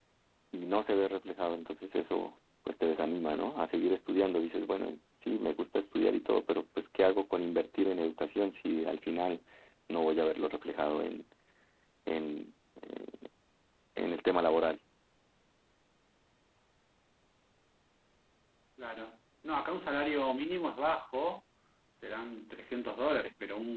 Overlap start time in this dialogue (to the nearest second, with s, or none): none